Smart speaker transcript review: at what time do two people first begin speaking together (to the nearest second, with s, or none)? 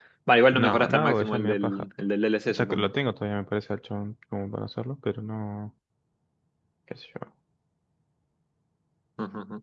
1 s